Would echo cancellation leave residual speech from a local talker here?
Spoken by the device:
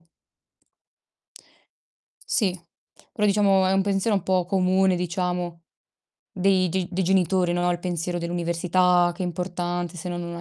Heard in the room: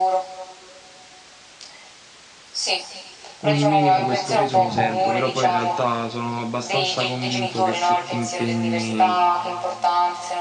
Yes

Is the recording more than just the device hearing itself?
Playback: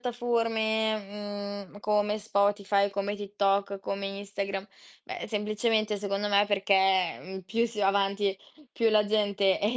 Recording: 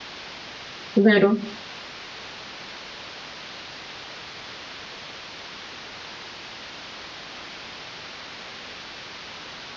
Yes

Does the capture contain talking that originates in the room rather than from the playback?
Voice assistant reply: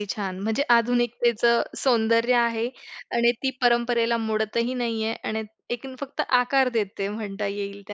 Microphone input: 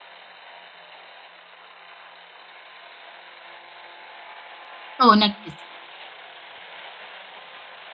Yes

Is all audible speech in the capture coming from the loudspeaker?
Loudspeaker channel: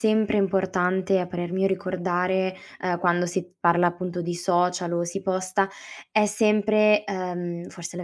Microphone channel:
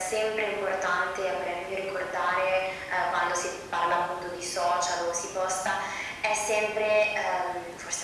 Yes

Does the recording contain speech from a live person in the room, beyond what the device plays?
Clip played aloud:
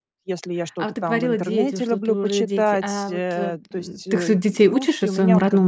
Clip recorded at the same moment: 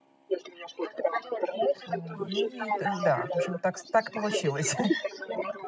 Yes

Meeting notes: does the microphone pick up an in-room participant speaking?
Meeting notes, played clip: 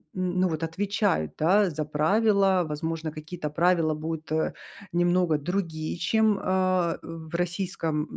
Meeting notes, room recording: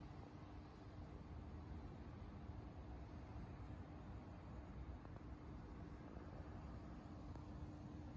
No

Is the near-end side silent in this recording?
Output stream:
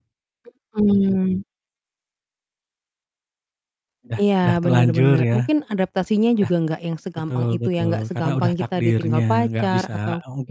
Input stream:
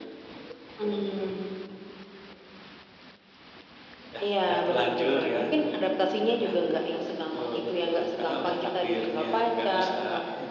Yes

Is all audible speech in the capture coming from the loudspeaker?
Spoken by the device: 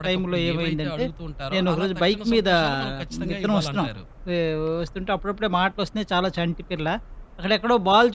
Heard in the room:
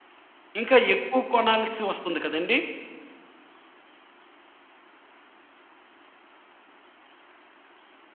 No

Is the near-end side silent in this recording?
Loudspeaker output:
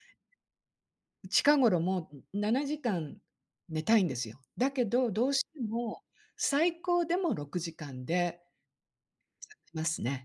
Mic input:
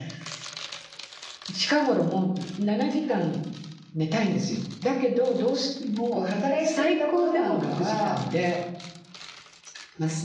No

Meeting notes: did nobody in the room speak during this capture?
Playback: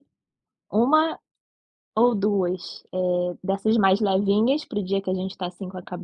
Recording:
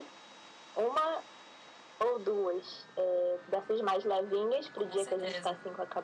No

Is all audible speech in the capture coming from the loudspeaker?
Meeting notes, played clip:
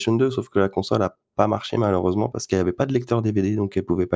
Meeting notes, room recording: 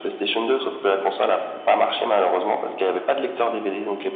Yes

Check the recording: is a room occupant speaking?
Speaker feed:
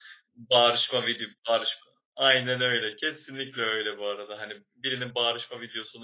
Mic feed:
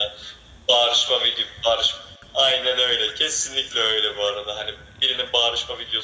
No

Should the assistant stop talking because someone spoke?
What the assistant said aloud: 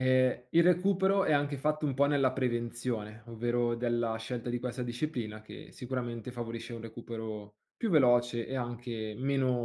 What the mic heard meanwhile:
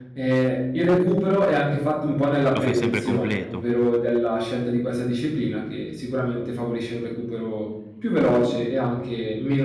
Yes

